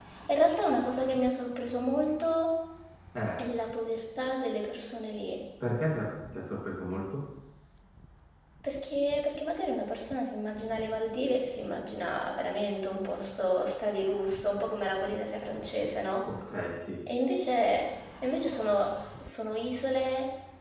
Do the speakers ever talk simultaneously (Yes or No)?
No